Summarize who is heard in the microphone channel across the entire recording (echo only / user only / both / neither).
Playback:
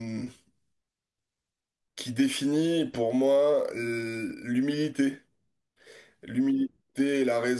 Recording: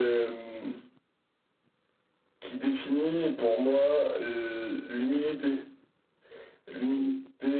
echo only